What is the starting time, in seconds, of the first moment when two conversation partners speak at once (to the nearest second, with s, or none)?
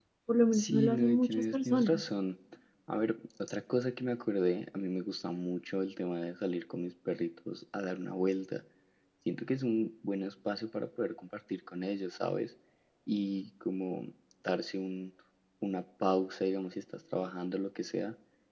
1 s